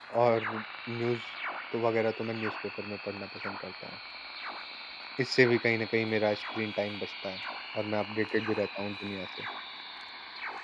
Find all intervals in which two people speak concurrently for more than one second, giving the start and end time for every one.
none

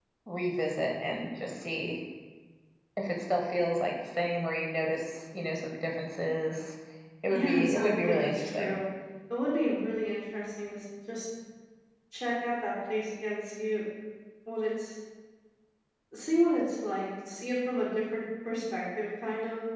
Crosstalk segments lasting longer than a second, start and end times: 7.3-8.8

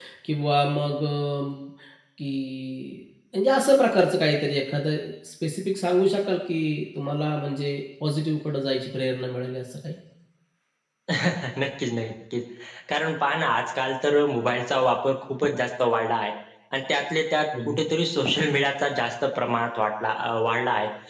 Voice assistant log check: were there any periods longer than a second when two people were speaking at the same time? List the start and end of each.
none

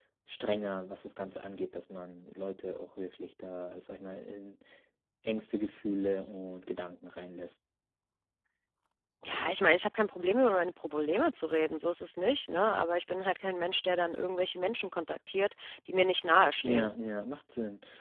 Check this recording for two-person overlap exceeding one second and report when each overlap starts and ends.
none

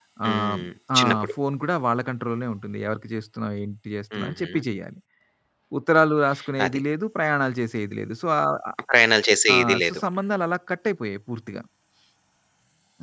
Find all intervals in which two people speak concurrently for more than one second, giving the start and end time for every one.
none

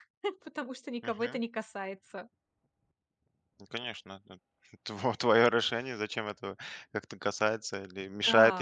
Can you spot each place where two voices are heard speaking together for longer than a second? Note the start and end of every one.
none

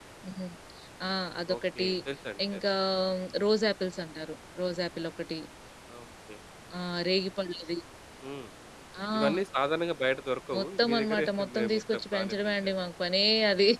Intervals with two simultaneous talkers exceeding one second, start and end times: 10.6-12.7

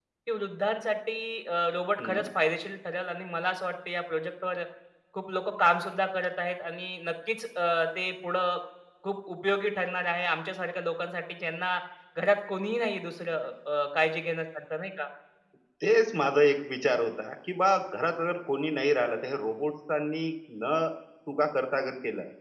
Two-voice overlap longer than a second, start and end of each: none

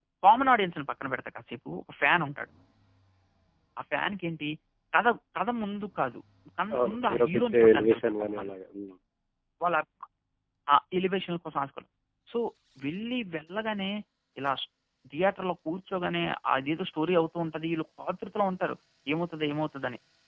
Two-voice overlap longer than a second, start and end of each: 6.8-8.5

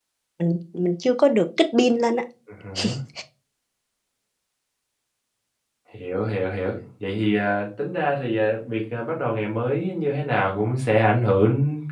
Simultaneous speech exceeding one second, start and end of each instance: none

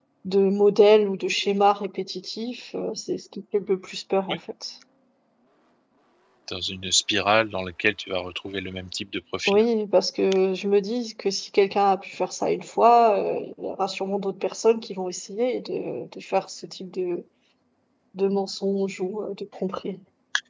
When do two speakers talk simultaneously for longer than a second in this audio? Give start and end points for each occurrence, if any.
none

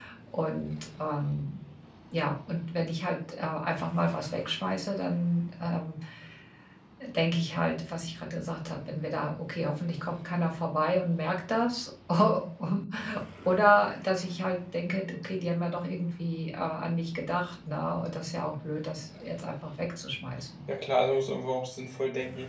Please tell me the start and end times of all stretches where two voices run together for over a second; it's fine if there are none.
none

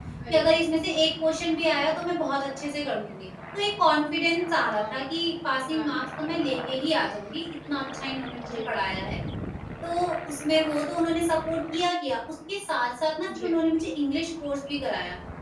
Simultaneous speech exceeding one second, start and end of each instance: none

